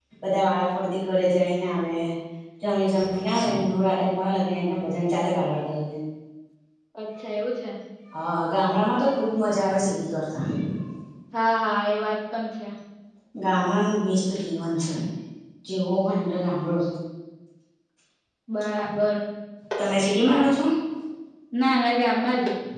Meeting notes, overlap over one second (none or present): none